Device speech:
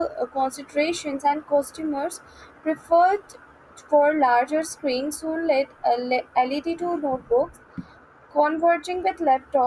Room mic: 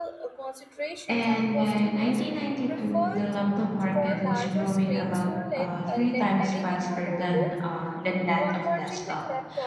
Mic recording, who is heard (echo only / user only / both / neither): both